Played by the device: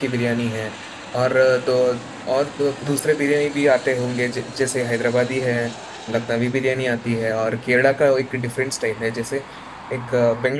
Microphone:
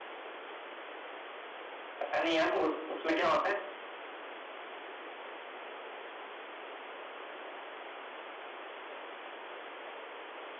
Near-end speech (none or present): present